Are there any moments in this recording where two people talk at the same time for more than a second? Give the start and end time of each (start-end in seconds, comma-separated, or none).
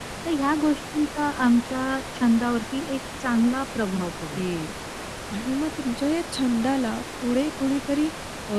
none